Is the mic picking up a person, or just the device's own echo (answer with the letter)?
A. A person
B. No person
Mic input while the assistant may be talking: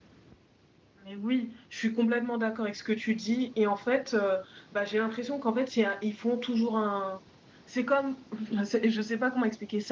A